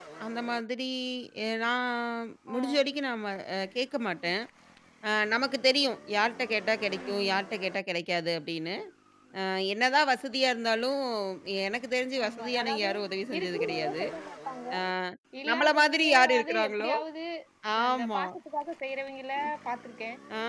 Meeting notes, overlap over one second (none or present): present